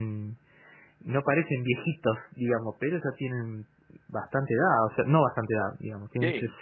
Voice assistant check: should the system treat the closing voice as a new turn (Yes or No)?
No